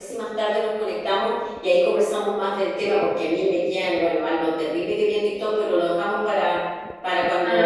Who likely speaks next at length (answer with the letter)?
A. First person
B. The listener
A